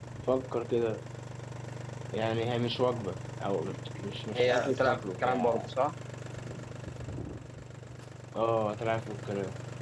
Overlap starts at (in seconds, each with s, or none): 4.3 s